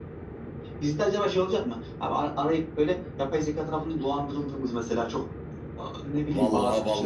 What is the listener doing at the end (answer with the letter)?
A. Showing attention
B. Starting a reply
B